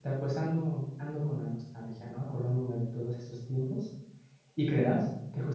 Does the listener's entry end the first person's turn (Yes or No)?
No